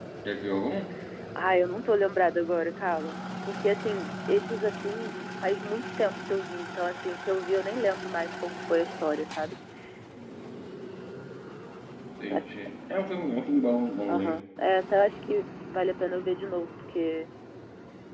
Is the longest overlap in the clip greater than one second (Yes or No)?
No